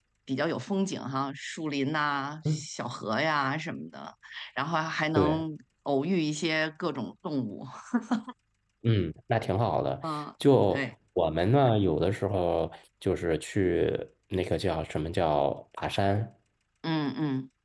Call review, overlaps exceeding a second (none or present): none